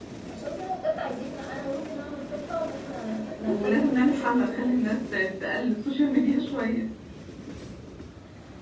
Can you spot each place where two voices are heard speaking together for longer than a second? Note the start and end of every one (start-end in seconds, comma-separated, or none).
3.5-4.8